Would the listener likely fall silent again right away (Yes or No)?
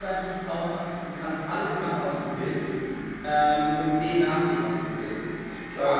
No